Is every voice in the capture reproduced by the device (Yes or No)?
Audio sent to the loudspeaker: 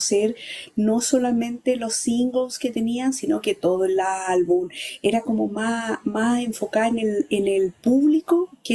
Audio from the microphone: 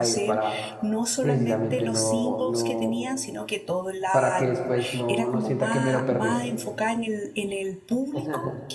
No